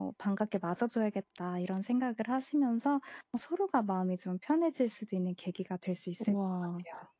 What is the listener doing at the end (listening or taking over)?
taking over